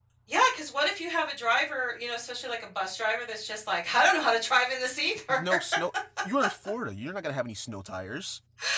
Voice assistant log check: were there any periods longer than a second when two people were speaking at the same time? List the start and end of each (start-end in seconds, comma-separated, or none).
none